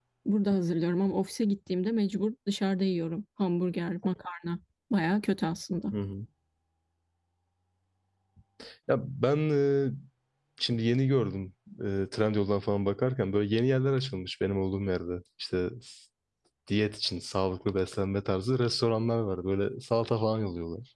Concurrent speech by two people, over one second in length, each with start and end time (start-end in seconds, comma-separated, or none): none